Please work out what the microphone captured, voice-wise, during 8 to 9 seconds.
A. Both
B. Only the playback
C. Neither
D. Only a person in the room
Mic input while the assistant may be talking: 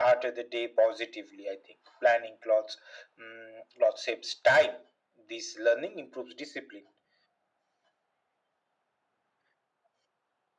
C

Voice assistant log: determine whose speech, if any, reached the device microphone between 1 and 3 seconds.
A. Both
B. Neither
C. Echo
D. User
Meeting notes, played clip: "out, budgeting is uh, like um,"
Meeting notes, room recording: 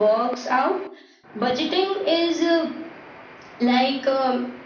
C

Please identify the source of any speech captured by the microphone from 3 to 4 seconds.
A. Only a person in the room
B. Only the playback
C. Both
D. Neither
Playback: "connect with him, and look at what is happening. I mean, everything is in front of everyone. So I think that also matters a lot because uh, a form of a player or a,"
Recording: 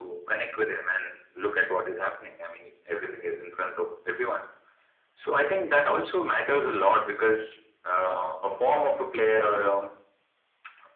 B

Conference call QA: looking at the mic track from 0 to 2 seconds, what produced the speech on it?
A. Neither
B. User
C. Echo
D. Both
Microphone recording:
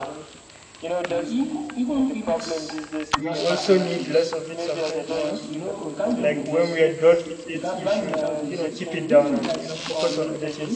C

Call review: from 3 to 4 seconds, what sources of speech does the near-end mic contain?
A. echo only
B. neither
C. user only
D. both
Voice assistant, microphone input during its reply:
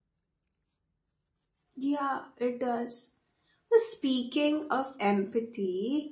C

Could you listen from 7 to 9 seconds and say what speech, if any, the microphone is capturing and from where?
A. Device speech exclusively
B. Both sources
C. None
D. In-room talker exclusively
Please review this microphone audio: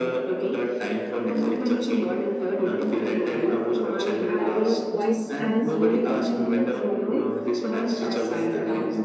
B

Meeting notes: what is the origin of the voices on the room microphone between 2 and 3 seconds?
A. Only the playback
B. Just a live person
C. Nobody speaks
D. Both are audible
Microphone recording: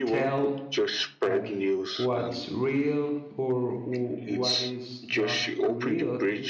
D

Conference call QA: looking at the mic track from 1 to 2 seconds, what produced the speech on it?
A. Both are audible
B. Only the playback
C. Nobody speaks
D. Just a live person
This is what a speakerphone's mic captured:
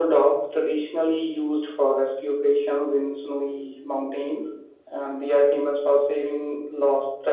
B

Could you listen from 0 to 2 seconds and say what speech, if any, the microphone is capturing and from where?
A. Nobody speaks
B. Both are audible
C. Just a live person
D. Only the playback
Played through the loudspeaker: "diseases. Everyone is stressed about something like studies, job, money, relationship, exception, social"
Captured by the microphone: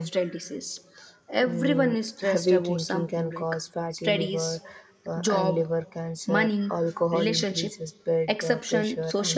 B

